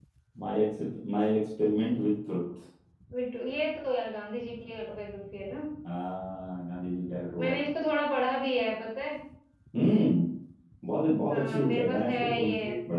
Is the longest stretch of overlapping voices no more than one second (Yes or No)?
No